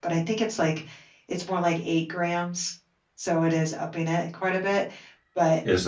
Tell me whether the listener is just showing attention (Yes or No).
No